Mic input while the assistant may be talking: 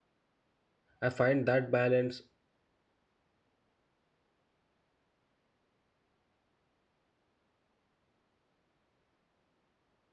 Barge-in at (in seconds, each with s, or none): 1.0 s